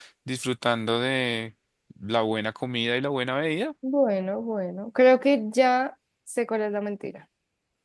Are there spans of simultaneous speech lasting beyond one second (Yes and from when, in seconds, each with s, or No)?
No